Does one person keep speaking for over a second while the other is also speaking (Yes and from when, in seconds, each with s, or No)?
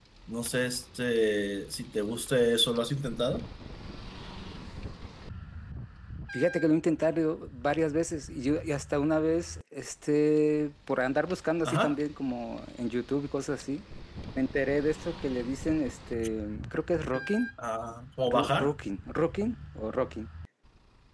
No